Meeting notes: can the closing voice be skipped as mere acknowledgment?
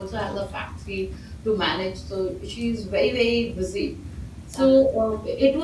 Yes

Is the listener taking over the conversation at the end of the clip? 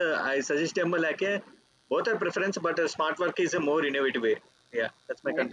Yes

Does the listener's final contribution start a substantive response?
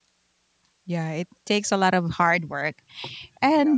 No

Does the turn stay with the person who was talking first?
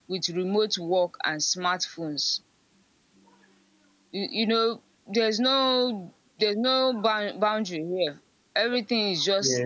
Yes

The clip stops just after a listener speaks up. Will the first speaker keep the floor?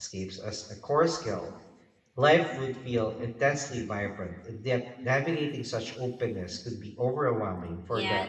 No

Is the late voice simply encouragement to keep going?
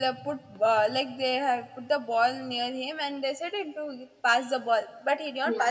Yes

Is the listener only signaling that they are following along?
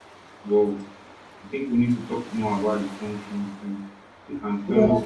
Yes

